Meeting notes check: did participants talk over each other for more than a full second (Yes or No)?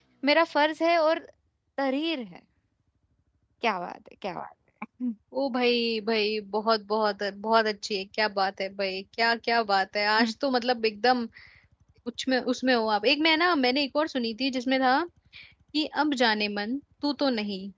No